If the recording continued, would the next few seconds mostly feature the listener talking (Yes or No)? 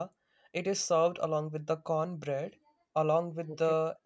No